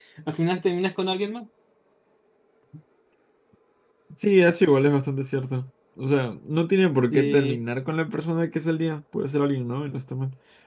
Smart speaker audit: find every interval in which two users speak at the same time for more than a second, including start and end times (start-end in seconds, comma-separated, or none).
none